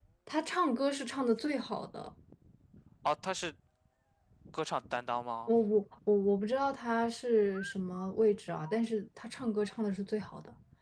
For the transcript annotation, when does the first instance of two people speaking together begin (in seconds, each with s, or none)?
none